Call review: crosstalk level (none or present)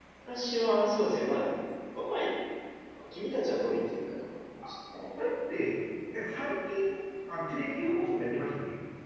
none